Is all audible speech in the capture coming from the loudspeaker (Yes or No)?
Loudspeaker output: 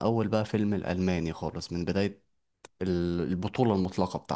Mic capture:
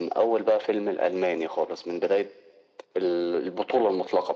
Yes